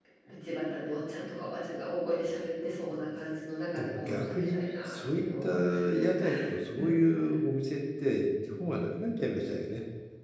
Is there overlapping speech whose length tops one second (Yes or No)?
Yes